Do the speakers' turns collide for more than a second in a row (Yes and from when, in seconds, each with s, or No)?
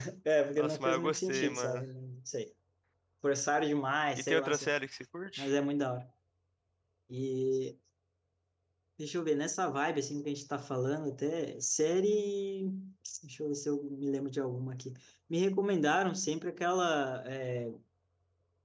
Yes, from 0.6 s